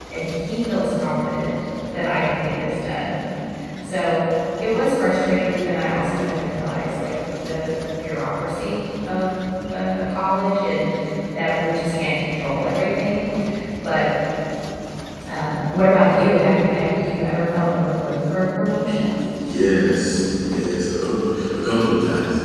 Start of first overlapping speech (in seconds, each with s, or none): none